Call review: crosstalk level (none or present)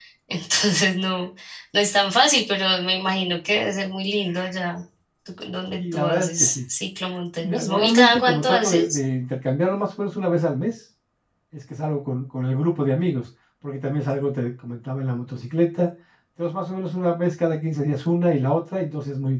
present